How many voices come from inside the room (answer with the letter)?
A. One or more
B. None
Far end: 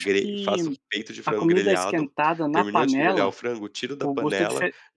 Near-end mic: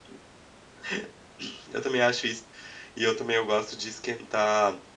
A